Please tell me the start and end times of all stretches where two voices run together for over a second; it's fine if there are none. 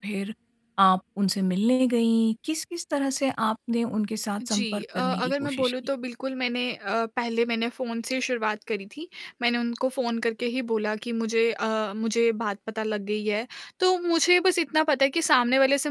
4.4-5.7

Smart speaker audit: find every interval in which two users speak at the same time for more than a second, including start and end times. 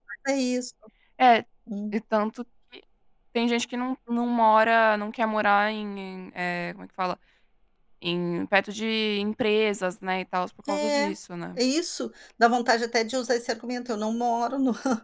none

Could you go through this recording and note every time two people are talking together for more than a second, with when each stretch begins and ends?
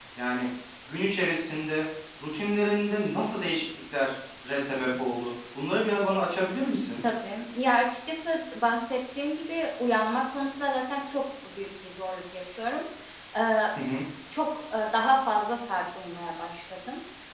none

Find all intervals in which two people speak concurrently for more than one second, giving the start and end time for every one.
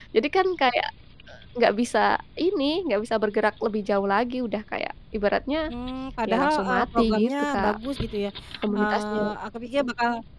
6.3-7.8

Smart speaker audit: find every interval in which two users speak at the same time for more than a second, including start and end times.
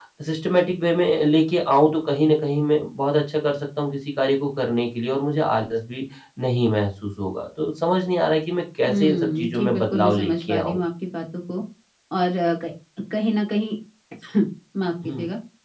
8.9-10.8

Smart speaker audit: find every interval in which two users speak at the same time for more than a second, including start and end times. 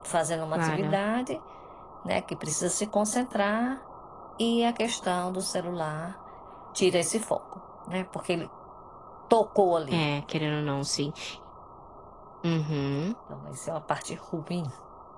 none

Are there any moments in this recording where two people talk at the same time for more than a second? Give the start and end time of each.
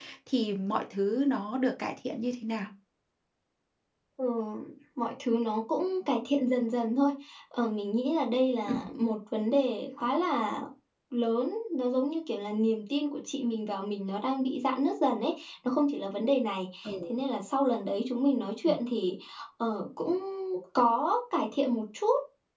none

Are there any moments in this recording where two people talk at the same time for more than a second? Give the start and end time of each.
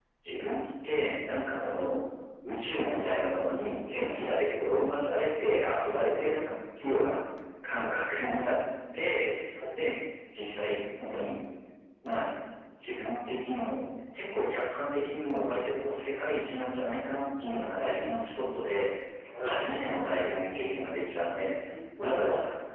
none

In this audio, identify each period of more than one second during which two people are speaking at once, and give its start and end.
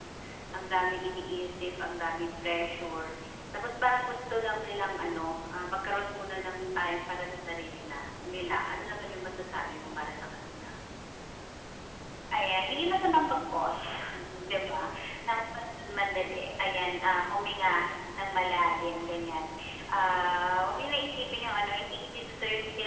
none

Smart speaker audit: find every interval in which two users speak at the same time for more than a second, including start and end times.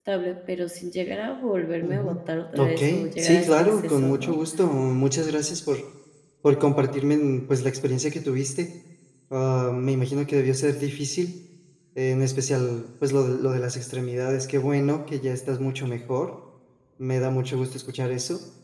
2.6-4.3

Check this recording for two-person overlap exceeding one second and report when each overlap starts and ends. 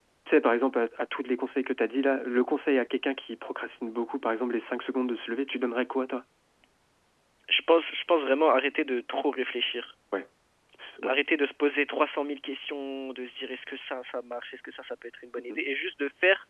none

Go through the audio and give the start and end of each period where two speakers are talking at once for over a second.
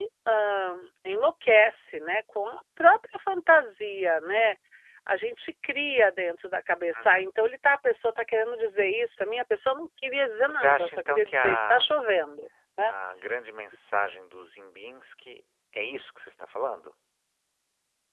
10.5-11.8

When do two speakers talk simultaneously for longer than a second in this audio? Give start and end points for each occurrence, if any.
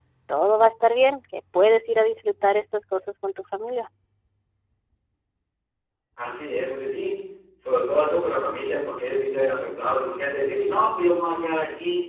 none

